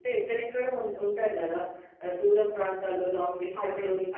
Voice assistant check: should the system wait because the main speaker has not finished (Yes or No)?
Yes